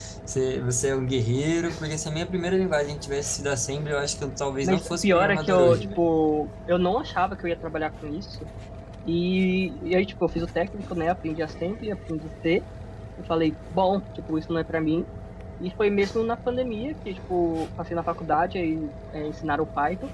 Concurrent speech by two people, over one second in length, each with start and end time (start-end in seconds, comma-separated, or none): 4.6-6.0